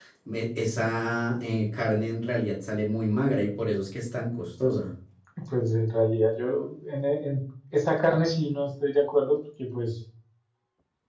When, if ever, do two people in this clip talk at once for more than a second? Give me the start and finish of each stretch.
none

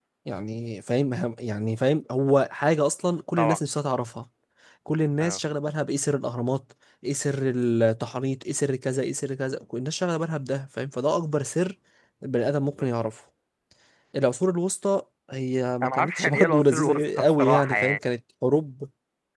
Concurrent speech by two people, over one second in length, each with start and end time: 15.8-18.0

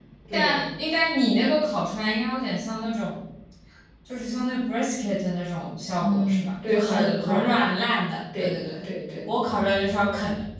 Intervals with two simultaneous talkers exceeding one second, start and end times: 6.0-7.6

